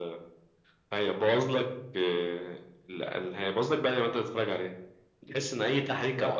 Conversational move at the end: listening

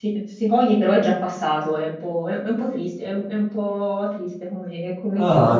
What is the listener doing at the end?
taking over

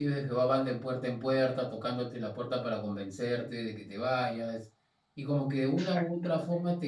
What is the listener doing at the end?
listening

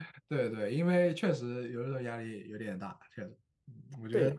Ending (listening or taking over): taking over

